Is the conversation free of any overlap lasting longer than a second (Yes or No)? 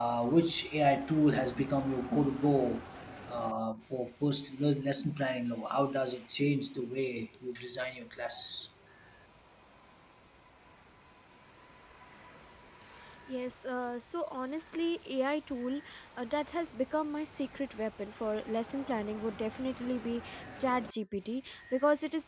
Yes